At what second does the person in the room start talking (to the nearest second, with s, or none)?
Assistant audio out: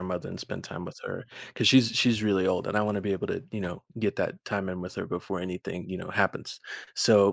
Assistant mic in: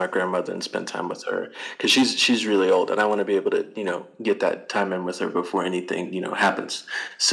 none